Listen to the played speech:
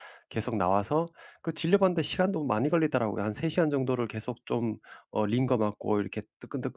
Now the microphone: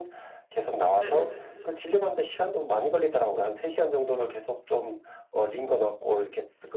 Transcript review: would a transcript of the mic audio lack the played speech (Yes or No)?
No